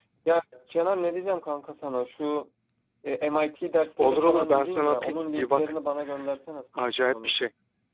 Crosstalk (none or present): present